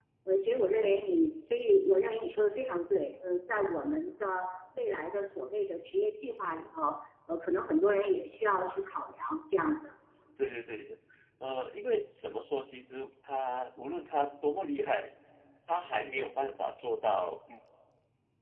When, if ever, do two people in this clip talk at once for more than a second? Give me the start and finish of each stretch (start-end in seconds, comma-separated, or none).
none